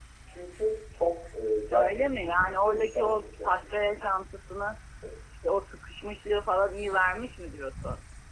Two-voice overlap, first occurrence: 1.7 s

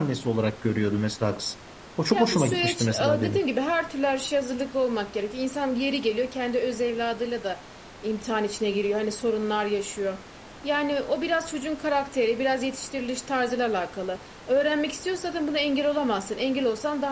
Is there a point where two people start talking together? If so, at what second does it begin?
2.1 s

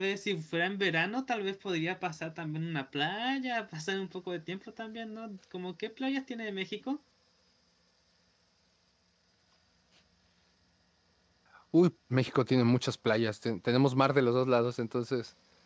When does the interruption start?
none

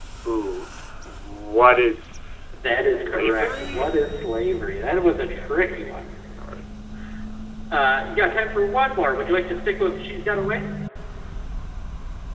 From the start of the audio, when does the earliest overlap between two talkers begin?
2.6 s

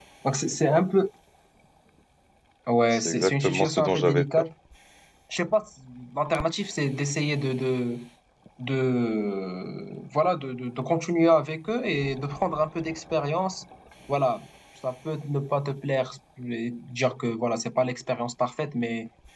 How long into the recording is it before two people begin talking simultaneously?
2.9 s

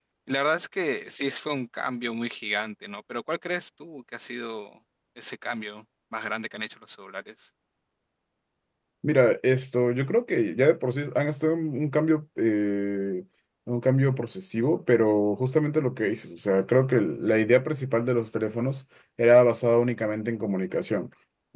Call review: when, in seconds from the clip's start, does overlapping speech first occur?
none

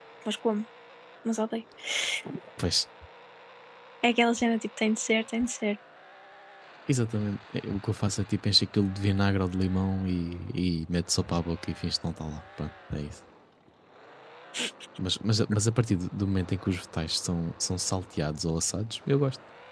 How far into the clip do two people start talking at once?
none

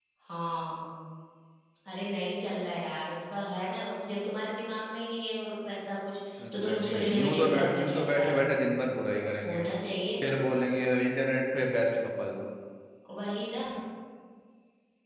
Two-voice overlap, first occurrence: 6.4 s

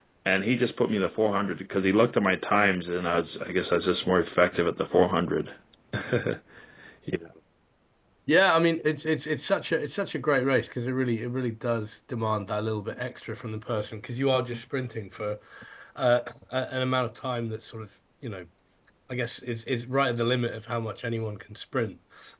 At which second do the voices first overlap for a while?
none

